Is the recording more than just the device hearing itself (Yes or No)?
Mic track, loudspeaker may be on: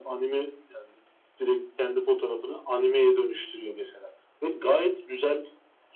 No